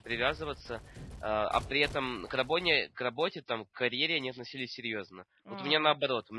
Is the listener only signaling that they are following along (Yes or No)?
Yes